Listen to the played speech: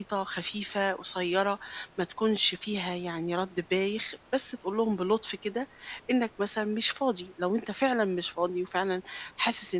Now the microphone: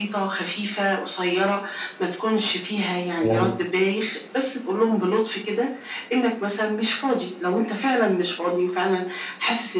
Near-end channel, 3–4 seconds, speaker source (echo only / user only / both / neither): both